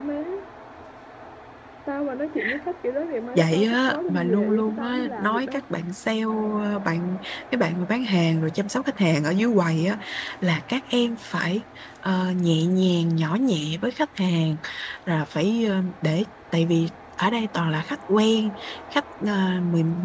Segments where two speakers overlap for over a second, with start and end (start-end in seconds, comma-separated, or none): 3.4-5.6